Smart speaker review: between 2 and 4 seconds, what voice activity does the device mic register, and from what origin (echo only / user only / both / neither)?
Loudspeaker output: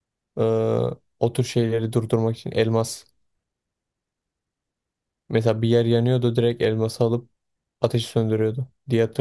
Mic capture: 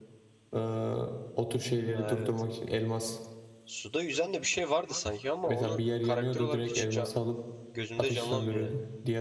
both